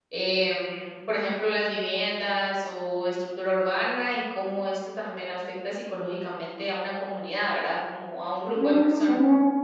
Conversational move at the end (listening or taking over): taking over